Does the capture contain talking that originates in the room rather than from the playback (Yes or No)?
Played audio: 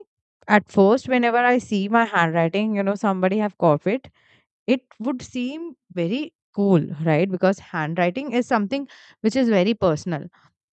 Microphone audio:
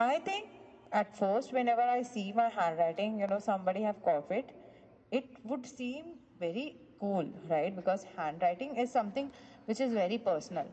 No